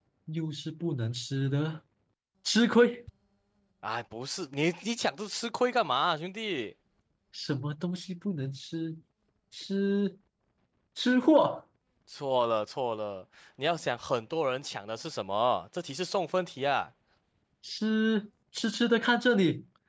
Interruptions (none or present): none